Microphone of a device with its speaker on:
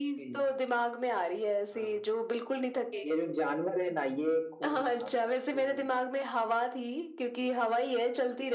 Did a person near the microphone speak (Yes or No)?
No